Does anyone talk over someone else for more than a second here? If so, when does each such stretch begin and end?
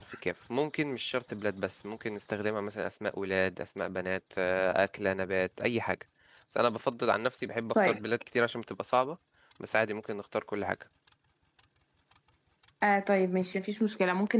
none

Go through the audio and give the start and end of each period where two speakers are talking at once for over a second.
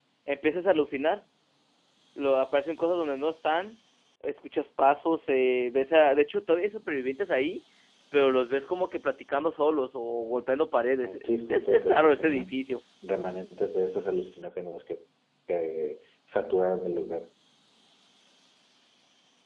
11.0-12.5

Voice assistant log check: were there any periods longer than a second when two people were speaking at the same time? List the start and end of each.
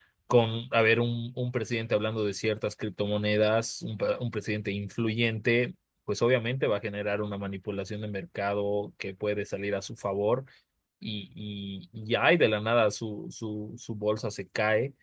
none

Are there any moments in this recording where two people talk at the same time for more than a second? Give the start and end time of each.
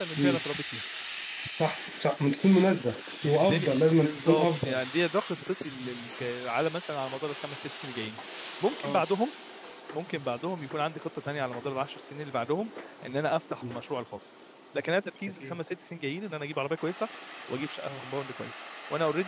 3.2-4.8

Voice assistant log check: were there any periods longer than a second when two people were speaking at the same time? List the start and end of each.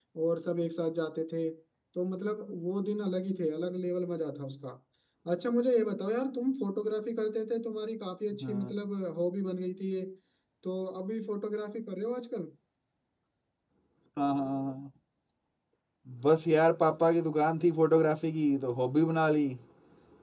none

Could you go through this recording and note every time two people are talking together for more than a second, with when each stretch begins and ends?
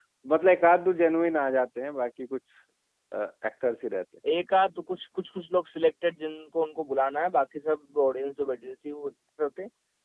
none

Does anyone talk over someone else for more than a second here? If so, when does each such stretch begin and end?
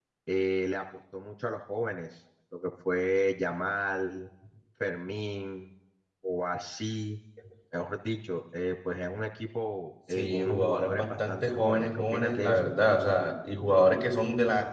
10.1-12.6

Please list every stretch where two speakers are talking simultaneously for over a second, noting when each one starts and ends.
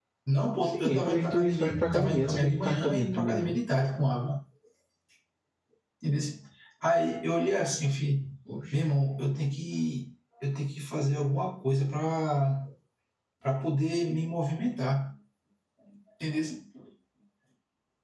0.6-3.6

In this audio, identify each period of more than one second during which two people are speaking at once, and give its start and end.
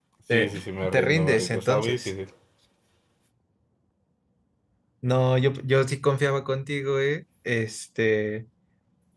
0.9-2.1

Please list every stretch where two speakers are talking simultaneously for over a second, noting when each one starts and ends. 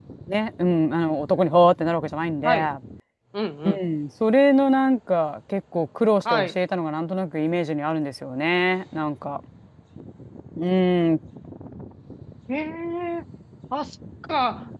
none

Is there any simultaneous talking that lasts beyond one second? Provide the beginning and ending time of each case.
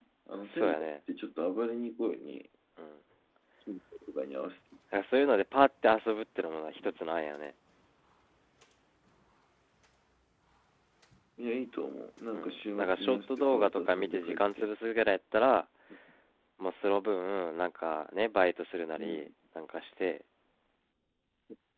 12.3-14.7

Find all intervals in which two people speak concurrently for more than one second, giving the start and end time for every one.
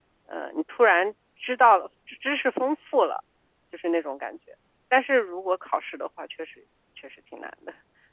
none

